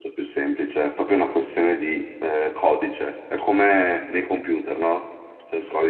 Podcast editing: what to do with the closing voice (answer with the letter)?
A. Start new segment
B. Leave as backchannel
B